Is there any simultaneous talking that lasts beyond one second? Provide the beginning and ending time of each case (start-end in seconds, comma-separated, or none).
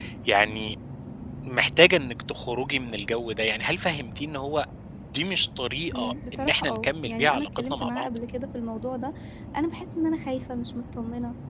5.9-8.1